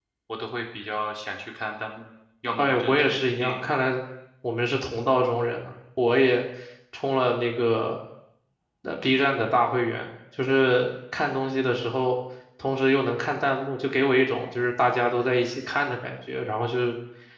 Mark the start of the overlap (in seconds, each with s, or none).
2.5 s